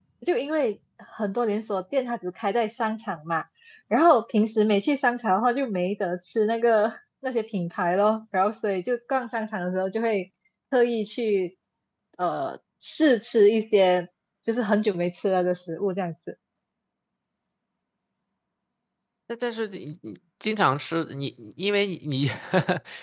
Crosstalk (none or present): none